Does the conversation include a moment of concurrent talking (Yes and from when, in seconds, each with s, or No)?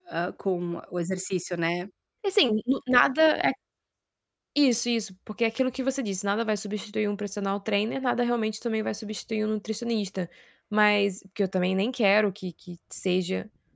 No